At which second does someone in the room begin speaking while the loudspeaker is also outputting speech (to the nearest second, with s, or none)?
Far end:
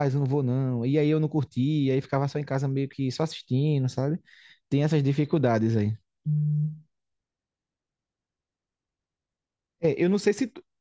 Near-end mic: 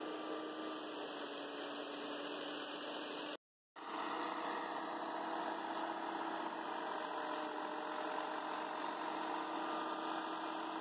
none